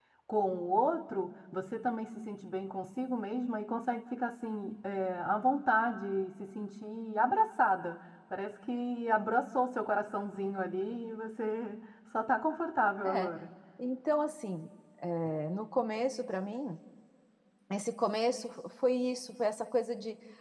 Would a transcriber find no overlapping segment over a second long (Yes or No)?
Yes